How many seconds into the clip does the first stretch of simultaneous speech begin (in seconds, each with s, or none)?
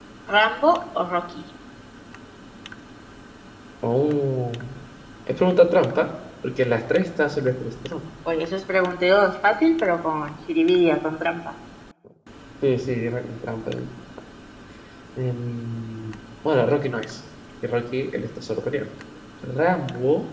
none